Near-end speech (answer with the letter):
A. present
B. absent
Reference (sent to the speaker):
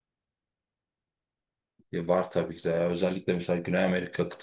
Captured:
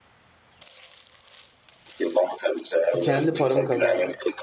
A